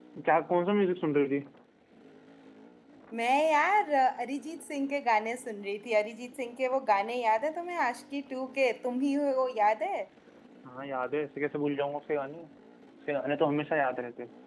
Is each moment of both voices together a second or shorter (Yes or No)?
Yes